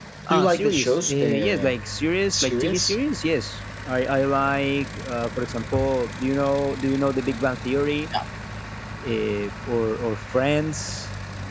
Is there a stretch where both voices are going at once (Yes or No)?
Yes